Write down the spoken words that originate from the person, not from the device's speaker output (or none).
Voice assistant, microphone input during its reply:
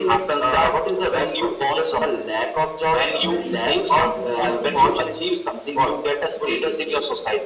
a very what we say